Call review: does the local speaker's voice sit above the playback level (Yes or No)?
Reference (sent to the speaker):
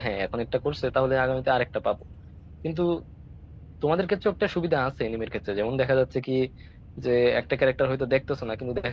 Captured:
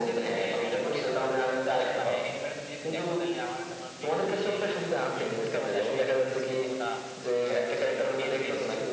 No